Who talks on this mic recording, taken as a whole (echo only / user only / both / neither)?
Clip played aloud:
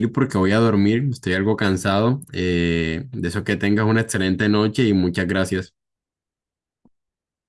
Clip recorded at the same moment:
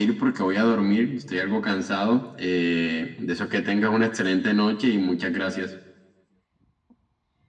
echo only